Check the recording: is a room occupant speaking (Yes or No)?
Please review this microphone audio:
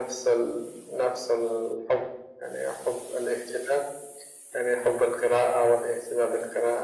No